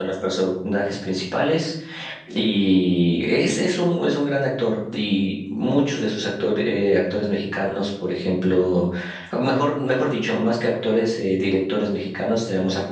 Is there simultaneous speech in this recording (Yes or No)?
No